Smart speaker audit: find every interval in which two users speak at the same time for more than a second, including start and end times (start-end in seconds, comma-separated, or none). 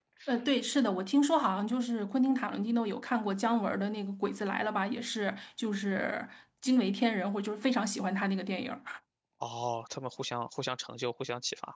none